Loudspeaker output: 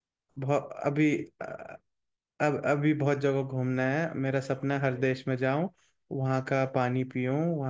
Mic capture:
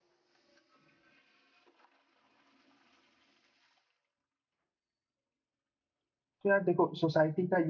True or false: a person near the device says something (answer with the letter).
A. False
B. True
B